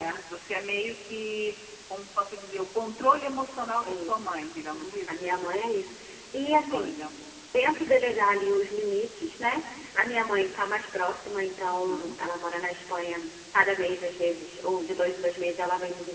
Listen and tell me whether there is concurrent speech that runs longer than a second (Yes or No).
Yes